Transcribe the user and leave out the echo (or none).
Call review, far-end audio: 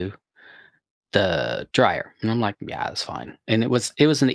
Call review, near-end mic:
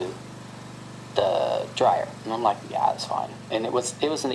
none